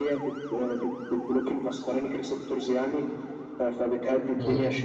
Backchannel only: Yes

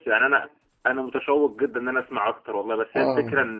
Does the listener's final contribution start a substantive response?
No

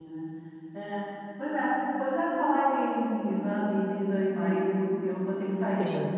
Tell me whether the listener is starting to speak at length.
No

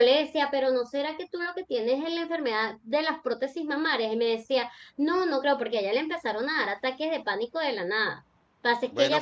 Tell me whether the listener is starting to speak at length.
No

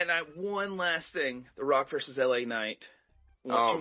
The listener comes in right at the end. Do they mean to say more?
Yes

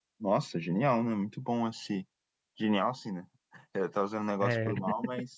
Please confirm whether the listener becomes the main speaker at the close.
No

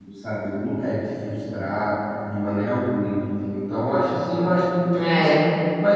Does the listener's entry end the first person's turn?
No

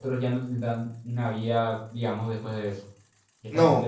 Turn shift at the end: Yes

